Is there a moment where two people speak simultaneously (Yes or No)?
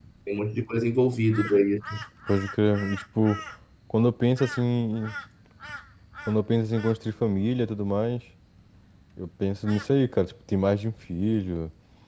No